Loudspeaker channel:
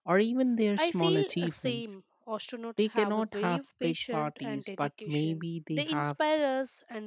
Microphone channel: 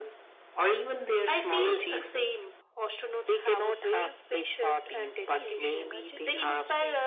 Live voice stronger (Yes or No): No